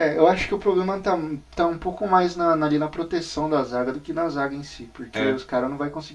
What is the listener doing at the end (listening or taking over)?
listening